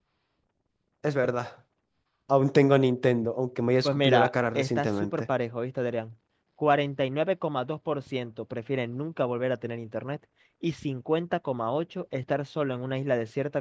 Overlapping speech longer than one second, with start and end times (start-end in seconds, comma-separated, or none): 3.8-5.2